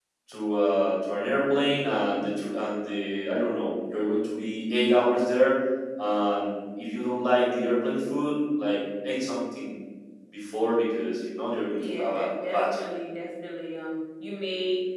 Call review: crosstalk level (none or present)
present